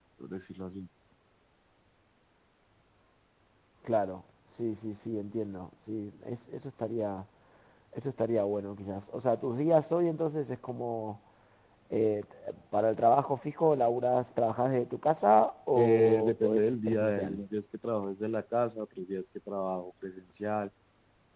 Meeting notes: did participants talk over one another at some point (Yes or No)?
Yes